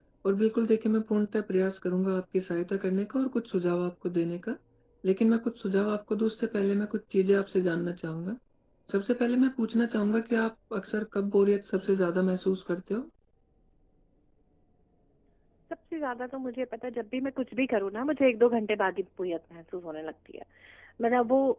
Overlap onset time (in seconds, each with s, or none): none